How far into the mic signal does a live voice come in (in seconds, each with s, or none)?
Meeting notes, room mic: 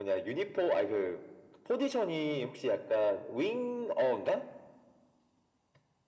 none